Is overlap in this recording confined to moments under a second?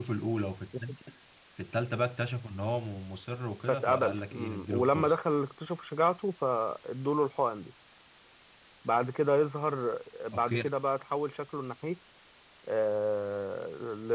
No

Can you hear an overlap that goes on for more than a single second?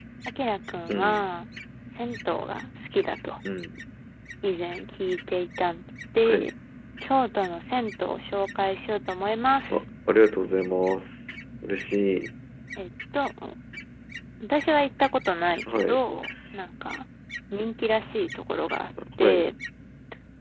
No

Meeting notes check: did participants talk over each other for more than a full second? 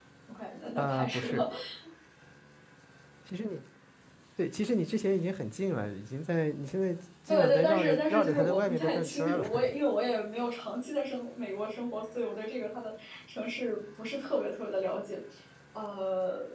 Yes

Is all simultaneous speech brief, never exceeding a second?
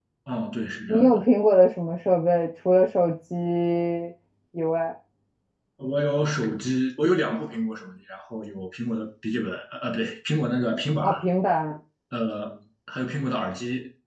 Yes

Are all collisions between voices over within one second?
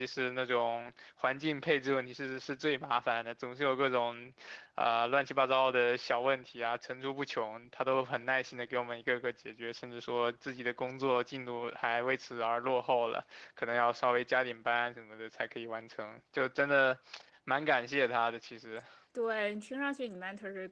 Yes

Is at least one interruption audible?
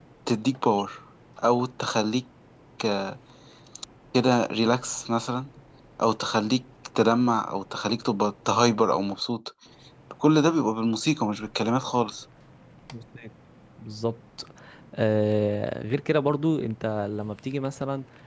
No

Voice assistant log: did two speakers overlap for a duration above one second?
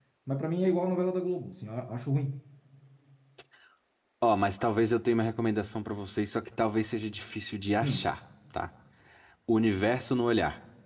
No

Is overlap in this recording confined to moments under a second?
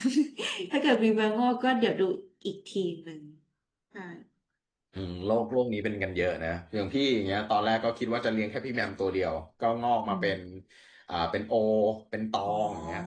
Yes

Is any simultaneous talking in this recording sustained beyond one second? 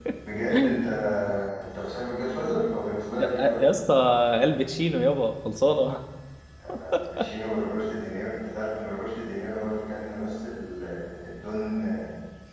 No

